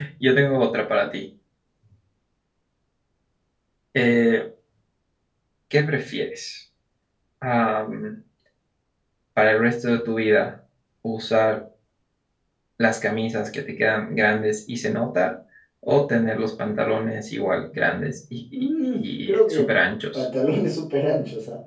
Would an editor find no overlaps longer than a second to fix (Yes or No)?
No